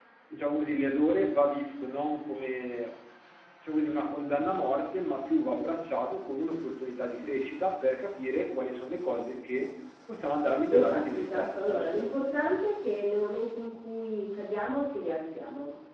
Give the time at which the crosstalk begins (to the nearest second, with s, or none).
11 s